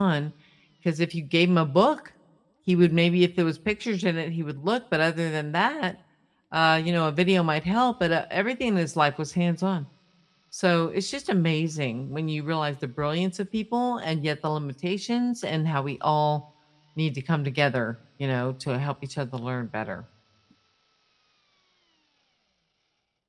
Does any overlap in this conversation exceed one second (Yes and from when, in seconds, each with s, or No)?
No